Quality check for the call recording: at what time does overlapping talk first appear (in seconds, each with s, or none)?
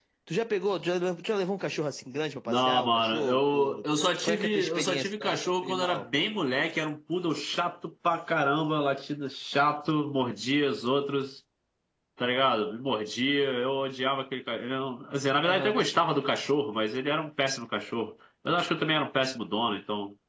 2.5 s